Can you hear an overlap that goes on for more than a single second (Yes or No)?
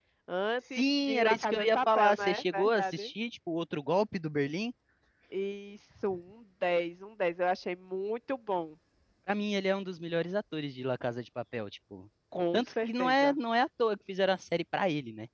Yes